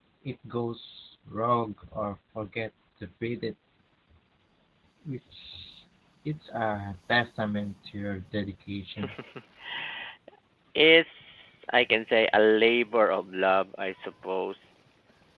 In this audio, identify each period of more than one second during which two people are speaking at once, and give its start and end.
none

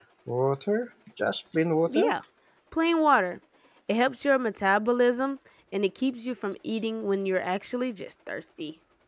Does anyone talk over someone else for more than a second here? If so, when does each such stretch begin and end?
none

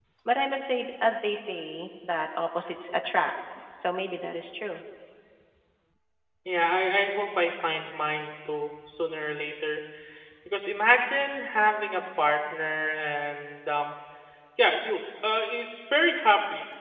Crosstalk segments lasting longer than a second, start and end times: none

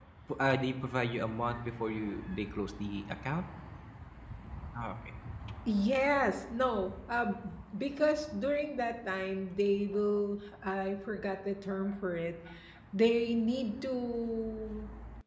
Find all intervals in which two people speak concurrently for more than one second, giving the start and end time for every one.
none

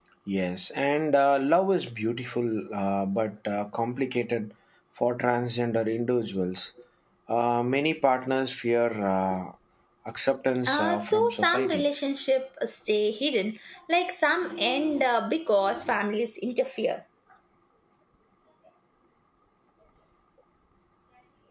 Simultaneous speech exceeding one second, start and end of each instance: 10.7-11.9

